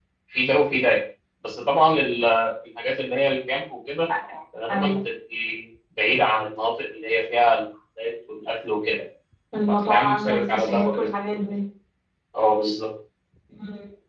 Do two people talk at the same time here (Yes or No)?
Yes